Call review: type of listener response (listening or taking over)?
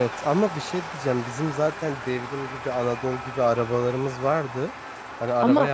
listening